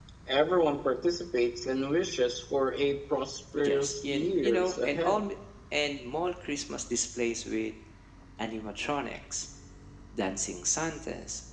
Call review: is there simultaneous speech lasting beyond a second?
Yes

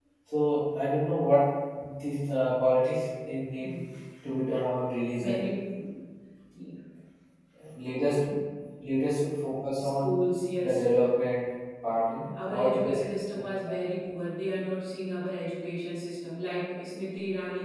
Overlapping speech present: Yes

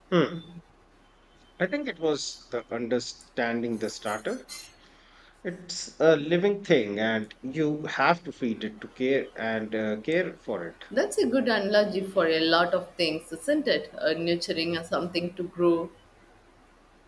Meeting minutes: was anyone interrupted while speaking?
No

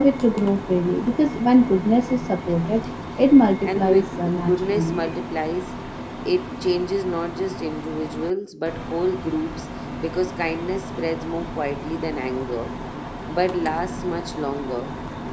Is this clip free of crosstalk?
No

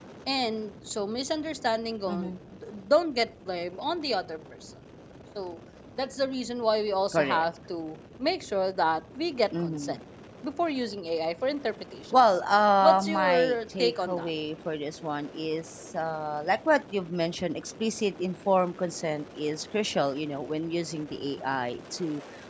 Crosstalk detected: Yes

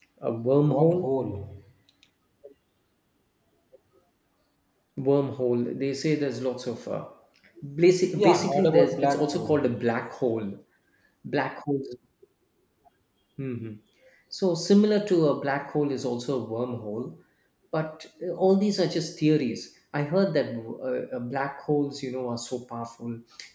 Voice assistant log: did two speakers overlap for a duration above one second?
Yes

